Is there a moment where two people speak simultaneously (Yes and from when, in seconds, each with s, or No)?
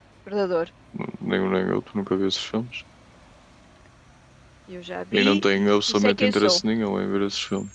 Yes, from 5.1 s